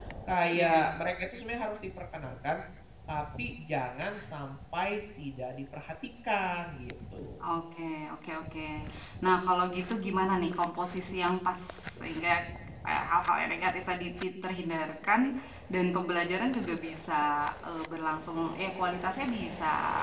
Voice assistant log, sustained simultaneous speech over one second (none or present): none